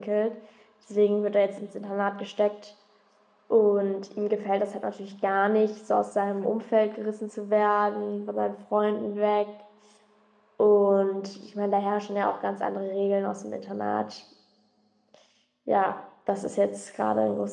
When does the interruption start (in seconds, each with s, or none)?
none